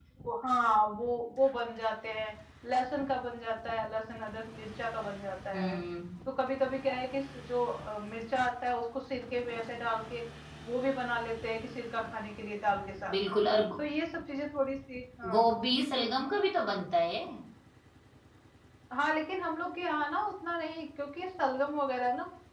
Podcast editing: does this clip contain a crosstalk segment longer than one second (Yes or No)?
No